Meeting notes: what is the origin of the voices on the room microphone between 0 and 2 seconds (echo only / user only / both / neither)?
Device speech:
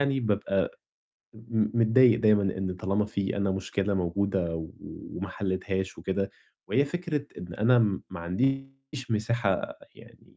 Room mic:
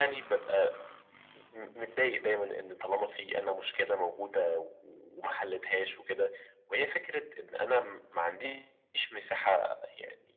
echo only